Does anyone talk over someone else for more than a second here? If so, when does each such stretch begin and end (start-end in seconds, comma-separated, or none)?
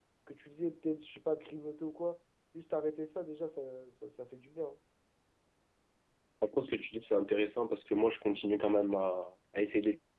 none